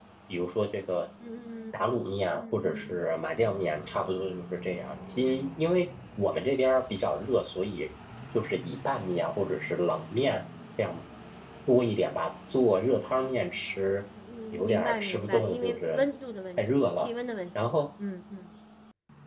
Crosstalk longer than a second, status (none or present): present